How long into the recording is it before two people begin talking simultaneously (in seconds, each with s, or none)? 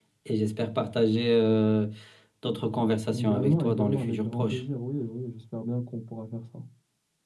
3.2 s